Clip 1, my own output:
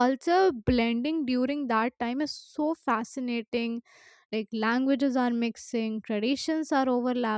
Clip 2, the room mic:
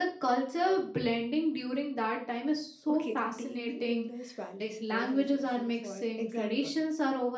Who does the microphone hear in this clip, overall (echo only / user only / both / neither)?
both